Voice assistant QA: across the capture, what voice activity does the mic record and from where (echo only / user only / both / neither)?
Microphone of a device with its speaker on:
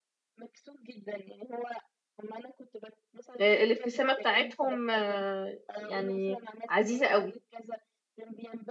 both